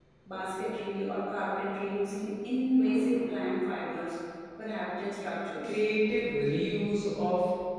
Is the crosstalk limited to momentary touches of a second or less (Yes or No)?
Yes